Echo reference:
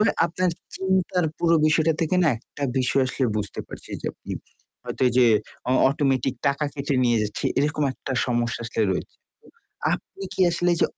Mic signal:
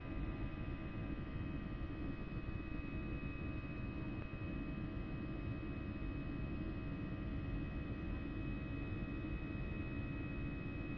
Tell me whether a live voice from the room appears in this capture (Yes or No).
No